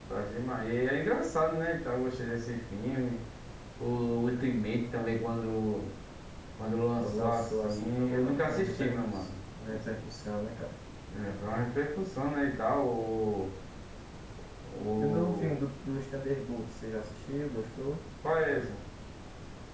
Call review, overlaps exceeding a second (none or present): present